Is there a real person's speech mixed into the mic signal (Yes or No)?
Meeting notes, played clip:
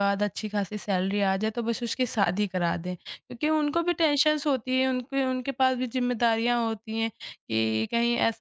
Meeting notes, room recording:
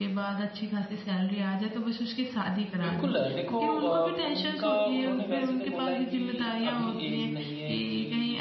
Yes